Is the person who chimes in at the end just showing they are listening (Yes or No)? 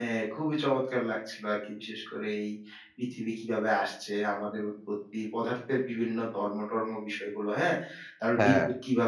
Yes